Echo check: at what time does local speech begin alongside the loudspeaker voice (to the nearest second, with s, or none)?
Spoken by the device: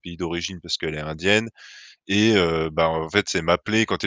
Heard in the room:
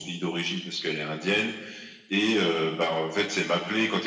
none